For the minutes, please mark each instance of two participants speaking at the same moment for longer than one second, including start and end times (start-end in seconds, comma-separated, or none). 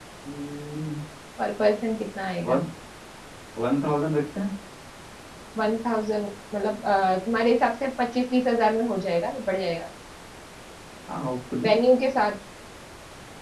none